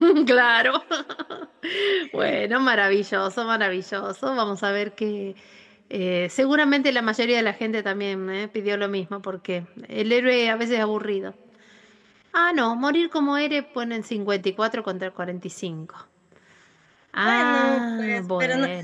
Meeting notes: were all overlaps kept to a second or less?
No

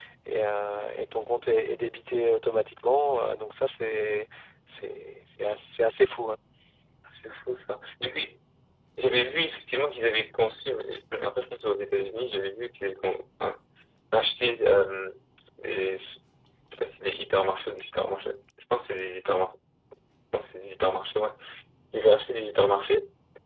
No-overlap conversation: Yes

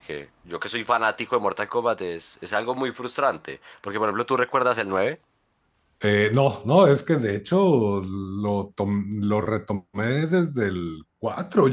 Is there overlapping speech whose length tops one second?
No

